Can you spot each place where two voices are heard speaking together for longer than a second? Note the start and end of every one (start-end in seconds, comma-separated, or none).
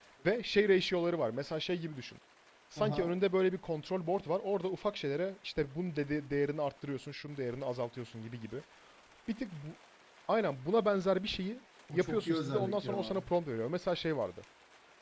11.9-13.2